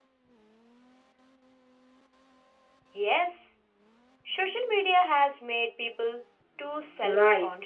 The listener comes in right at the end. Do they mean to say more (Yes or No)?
Yes